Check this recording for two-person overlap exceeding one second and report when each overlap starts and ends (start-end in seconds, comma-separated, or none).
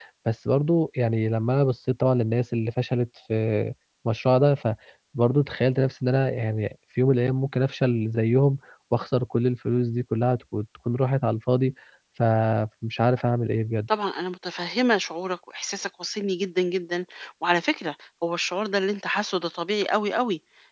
none